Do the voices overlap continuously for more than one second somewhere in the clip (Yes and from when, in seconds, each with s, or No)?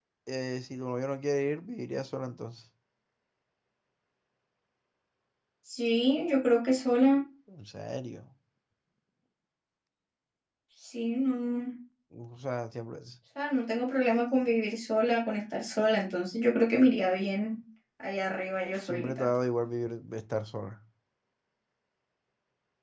No